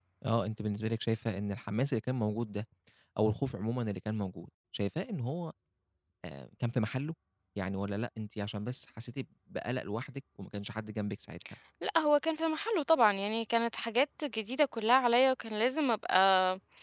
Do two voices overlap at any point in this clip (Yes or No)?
No